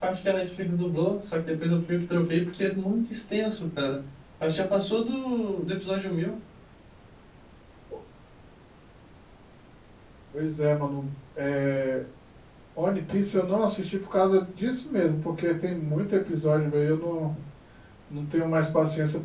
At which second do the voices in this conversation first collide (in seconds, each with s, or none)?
none